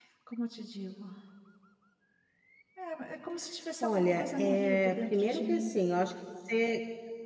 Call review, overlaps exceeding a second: present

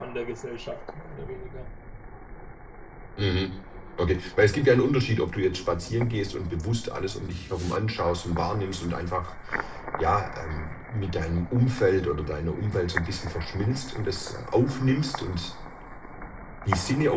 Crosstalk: none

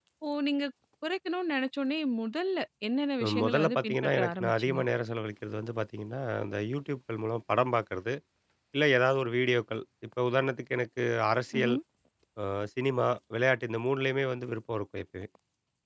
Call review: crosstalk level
present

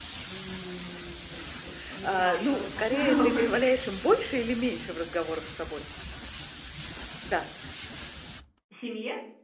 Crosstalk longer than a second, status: present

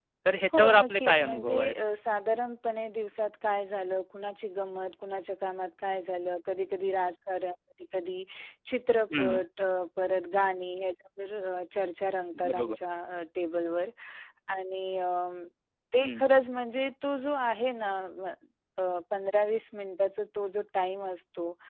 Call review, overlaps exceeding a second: present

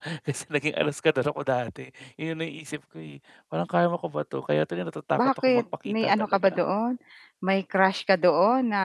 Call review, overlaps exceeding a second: present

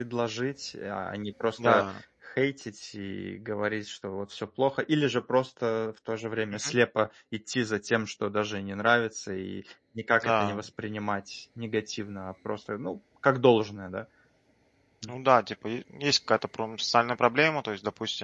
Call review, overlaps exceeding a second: none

